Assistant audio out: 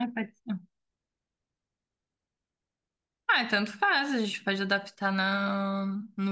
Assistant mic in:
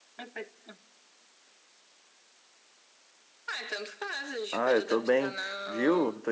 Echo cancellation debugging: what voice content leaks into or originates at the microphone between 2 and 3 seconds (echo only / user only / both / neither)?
neither